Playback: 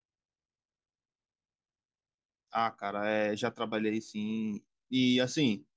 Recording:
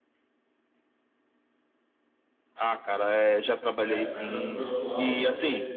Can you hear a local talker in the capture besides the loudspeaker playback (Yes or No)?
Yes